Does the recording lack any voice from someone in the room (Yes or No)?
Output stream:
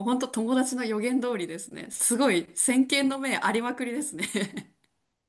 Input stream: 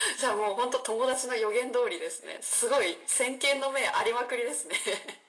Yes